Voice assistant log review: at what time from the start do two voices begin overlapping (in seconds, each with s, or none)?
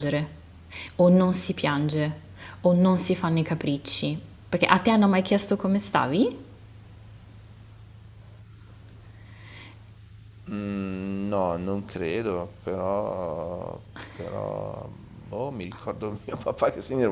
none